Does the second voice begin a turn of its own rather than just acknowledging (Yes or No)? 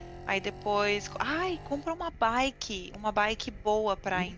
No